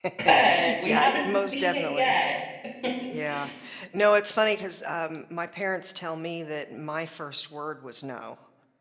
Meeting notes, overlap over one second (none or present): present